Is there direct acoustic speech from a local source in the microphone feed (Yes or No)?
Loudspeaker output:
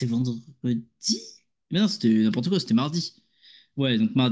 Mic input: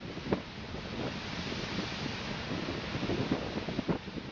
No